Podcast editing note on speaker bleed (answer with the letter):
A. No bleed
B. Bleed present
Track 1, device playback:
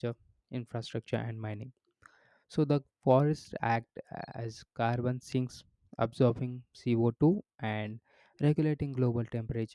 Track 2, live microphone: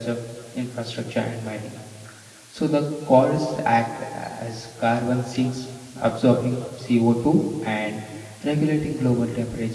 B